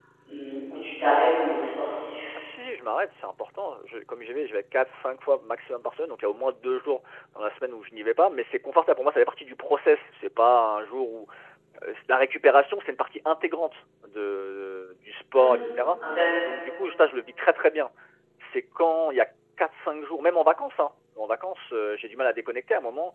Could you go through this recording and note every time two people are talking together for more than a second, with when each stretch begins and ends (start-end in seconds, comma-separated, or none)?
none